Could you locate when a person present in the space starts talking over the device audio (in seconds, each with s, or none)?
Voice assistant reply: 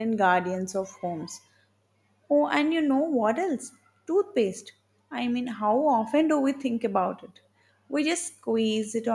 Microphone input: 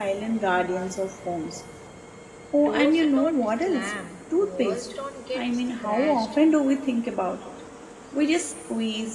2.6 s